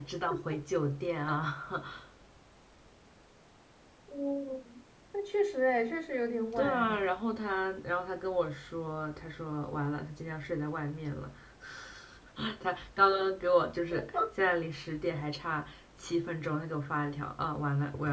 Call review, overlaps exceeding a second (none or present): none